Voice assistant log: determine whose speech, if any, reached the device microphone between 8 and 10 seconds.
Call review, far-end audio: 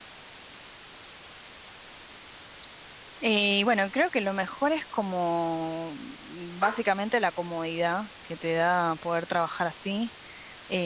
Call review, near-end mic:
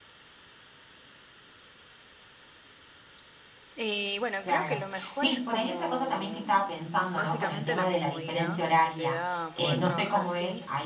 both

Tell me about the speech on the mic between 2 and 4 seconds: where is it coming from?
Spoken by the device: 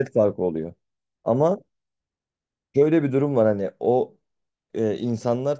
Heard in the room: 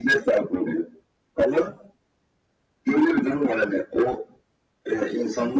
echo only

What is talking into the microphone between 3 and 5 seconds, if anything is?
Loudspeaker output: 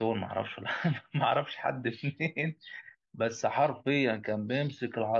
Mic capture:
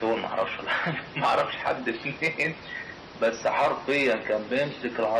echo only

